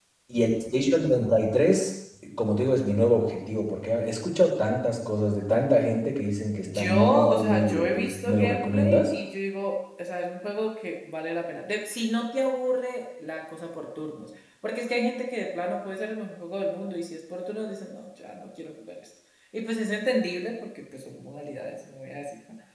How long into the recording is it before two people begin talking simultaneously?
6.6 s

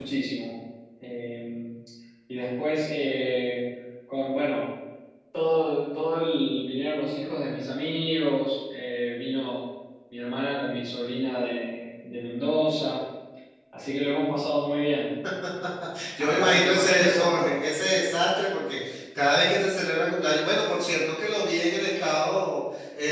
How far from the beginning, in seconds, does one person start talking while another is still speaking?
16.2 s

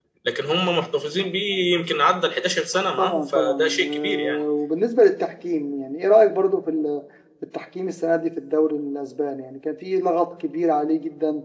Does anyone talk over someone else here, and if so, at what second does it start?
3.0 s

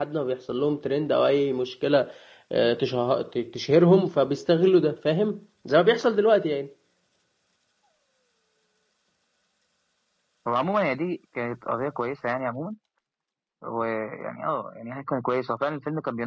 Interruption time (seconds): none

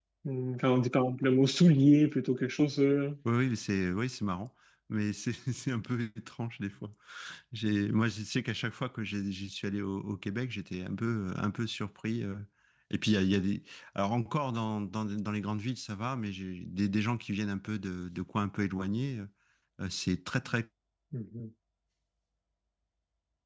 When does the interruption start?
none

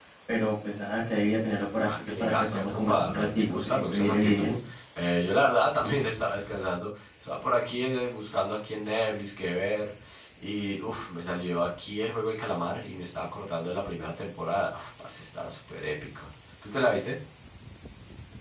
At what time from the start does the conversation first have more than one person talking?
1.8 s

